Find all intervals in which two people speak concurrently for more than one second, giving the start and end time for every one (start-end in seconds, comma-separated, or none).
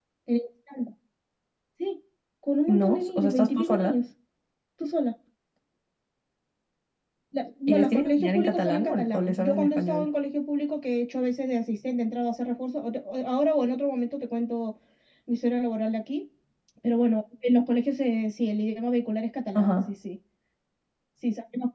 2.7-4.0, 7.7-10.1